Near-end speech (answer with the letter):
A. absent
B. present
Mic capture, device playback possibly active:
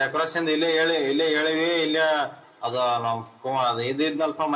A